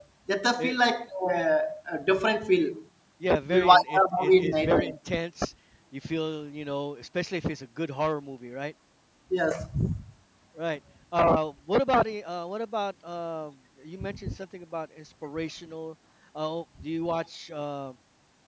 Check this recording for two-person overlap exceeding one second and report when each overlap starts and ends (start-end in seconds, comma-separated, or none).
3.5-4.9